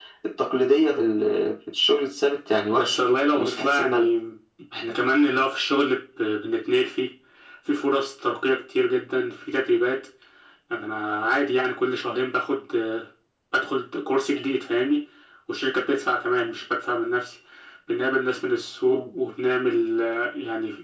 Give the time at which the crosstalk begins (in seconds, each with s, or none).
2.7 s